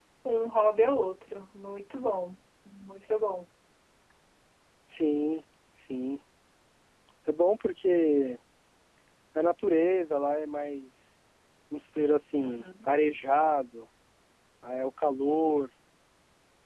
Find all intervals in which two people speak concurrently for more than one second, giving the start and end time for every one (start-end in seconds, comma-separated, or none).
none